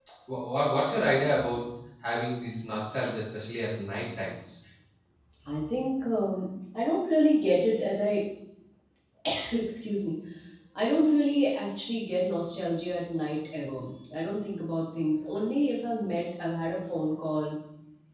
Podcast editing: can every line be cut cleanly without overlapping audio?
Yes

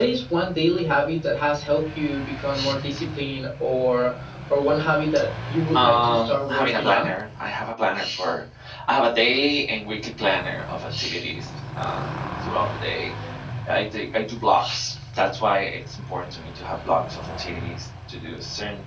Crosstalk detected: Yes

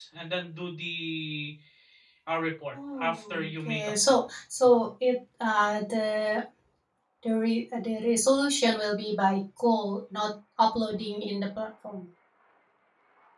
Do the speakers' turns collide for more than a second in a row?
Yes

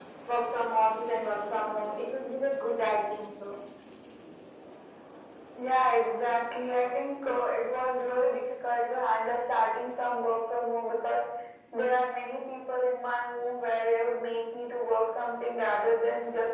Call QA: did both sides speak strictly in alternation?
Yes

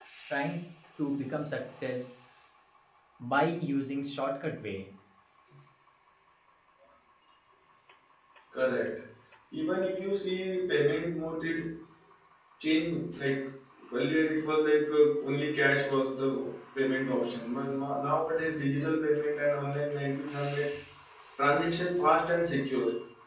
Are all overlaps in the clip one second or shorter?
Yes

